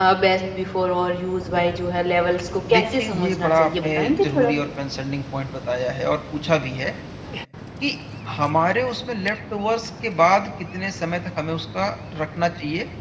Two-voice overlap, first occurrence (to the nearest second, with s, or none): 3 s